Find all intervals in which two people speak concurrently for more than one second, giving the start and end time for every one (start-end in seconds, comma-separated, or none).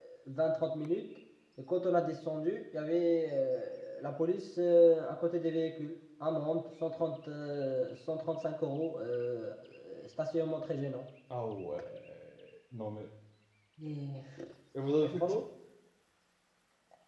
none